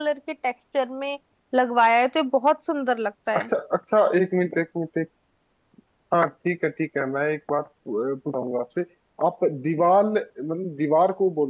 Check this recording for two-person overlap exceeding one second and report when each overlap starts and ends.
none

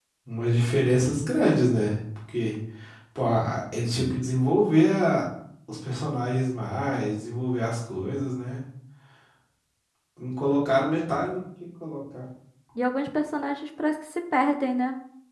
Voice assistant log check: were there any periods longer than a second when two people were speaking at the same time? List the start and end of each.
none

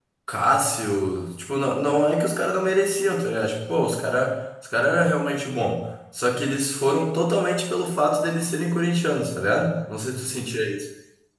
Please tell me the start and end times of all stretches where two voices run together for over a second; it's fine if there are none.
none

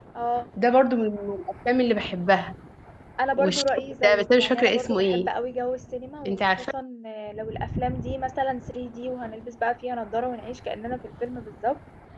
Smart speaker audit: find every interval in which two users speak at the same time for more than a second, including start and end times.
4.0-5.3

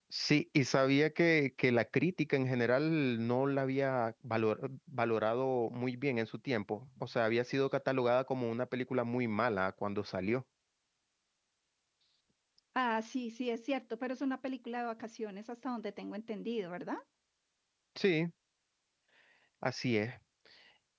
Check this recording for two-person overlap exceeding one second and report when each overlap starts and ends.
none

